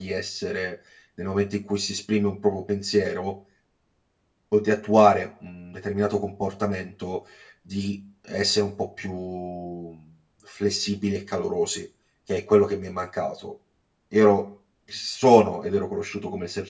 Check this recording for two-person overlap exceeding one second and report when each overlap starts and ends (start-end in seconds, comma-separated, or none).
none